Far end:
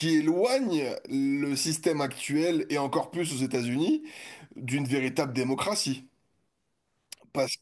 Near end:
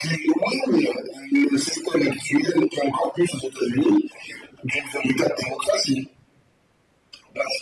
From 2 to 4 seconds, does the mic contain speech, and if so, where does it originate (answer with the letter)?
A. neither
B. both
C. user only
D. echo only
D